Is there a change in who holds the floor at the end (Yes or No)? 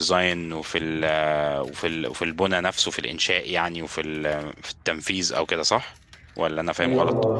Yes